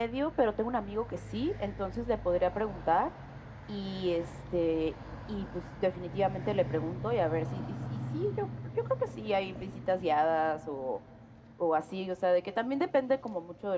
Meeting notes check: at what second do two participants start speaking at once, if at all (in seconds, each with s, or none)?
none